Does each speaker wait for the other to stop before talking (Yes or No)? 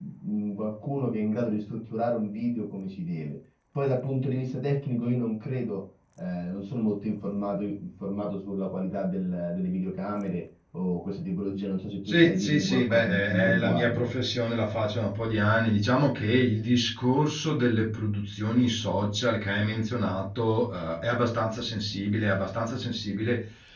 No